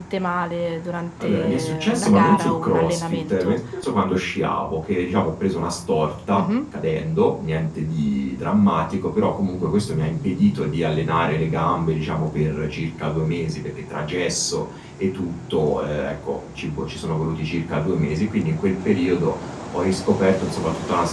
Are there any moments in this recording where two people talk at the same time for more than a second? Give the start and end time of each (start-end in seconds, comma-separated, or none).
1.2-3.6